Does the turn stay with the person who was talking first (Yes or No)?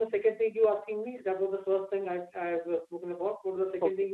No